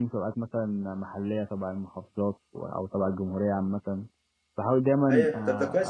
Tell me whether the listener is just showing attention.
No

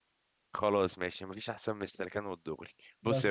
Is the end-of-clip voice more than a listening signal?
No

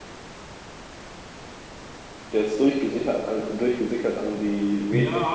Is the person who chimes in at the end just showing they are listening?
No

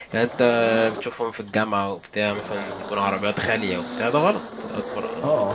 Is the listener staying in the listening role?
No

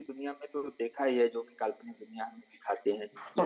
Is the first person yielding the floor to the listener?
Yes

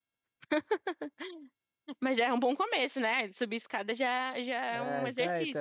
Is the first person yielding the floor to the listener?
Yes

